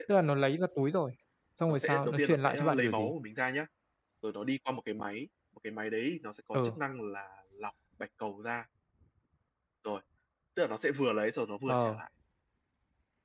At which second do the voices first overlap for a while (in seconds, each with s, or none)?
1.7 s